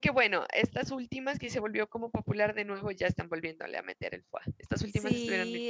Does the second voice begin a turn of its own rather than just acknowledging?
Yes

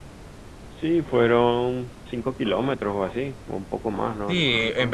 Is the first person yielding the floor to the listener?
Yes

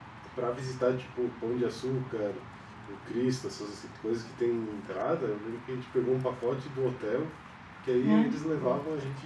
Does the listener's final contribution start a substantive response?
No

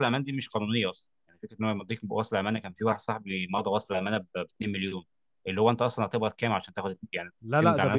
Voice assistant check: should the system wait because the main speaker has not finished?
No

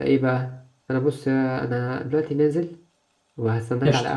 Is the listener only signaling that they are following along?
Yes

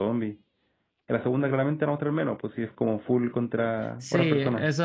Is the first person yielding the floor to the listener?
Yes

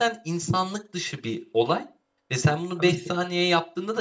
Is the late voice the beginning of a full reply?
No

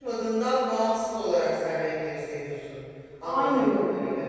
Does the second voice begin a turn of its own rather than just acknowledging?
Yes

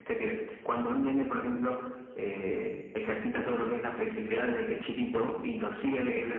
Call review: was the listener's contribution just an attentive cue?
Yes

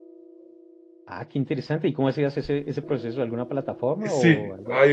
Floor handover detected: Yes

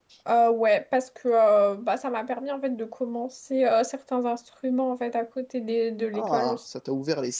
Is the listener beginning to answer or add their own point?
Yes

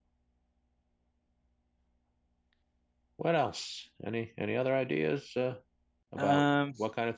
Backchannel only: Yes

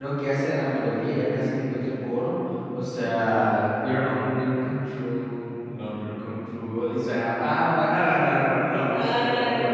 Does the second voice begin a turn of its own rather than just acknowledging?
No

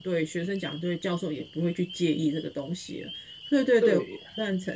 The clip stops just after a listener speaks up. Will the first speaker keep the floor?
No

